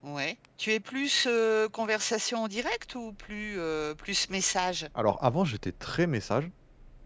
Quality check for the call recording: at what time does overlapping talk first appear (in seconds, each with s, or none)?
none